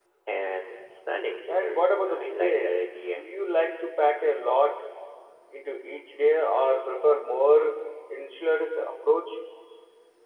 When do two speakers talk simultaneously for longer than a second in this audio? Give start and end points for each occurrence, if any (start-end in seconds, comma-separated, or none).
1.5-3.2